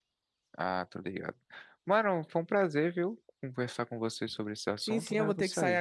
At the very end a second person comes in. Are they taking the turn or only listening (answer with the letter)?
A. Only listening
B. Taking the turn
B